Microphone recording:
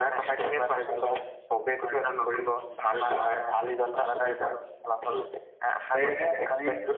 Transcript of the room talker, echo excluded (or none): সেয়েহে আমি